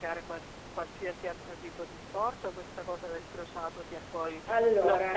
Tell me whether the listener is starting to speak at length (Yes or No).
No